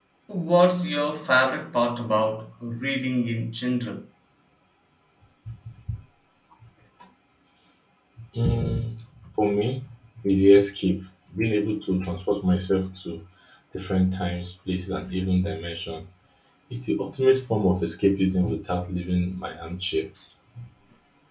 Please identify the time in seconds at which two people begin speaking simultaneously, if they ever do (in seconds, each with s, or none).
none